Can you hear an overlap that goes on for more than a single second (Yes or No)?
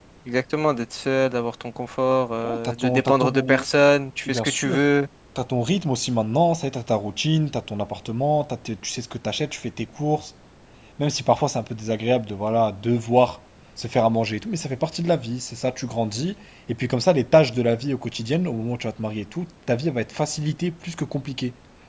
Yes